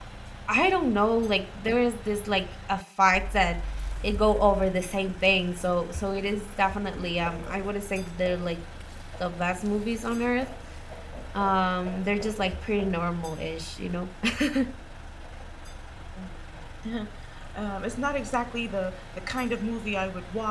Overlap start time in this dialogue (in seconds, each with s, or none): none